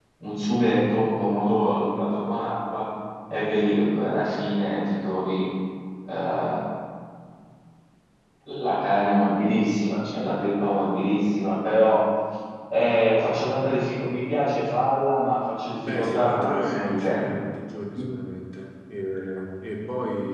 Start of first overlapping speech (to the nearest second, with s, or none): 16 s